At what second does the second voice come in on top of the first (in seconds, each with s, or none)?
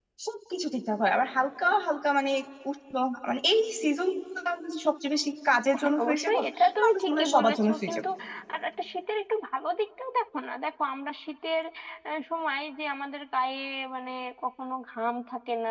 5.7 s